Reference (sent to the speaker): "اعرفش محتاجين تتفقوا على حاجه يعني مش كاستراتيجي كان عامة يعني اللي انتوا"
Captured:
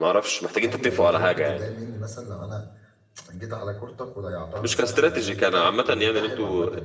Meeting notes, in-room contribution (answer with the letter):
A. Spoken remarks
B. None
A